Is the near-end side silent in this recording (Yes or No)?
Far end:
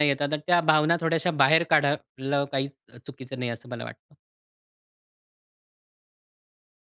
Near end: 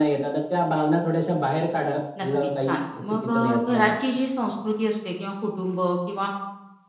No